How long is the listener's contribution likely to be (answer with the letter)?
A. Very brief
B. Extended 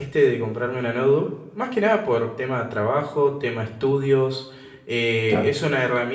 A